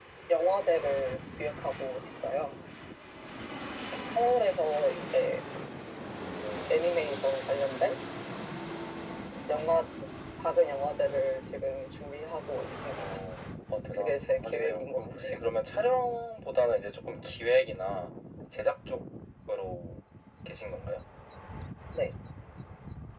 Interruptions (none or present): present